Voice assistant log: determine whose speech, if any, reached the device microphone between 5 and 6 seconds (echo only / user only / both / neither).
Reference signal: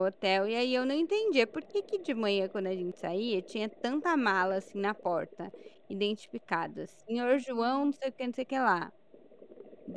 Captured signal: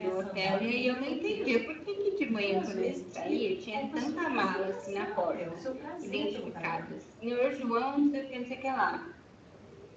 both